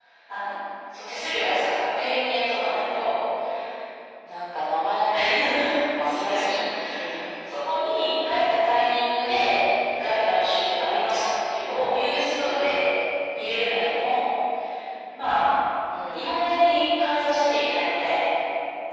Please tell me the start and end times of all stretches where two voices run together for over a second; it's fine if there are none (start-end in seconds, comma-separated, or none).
none